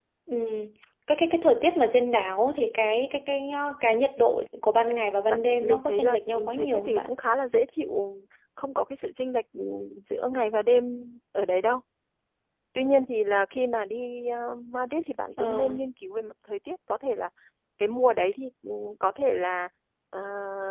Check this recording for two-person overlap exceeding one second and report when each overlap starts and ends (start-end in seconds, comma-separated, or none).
5.3-7.1